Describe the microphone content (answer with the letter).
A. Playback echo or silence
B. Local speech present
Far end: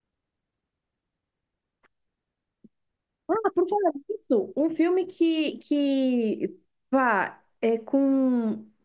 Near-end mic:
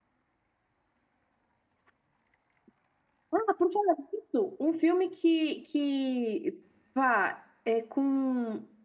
A